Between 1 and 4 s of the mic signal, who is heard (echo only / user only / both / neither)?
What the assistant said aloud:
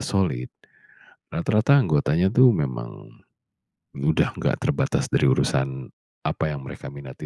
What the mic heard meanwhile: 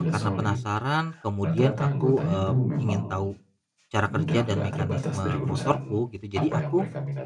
both